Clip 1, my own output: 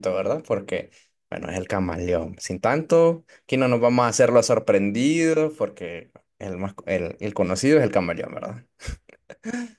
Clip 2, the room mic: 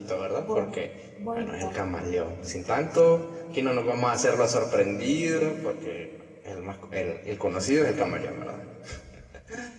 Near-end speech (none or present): present